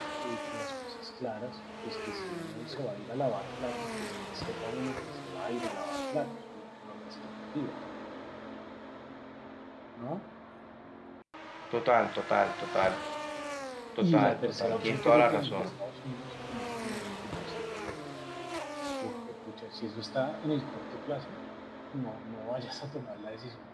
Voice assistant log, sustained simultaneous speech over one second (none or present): present